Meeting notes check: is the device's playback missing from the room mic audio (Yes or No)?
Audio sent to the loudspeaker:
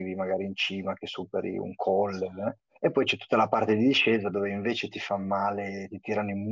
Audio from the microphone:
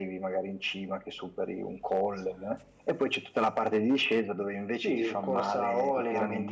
No